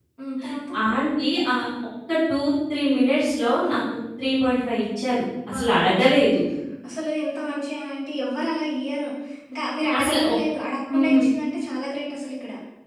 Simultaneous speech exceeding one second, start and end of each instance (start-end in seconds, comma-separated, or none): none